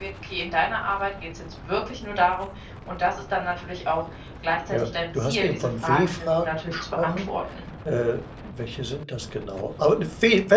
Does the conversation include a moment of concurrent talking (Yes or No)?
Yes